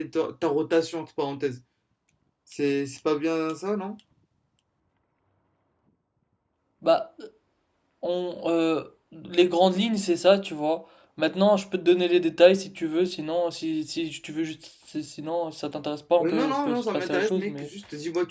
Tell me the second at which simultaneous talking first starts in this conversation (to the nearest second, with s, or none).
16 s